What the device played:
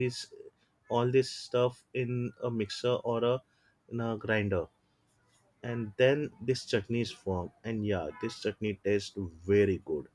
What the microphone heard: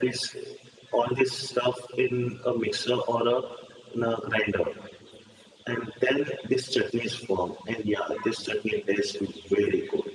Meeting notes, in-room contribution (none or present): none